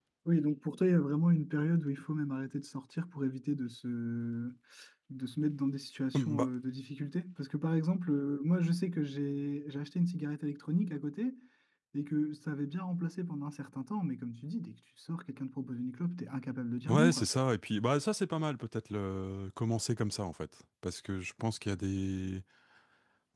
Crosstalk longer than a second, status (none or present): none